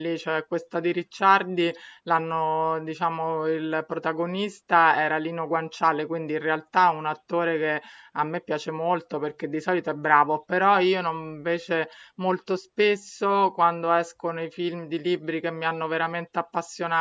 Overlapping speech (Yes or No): No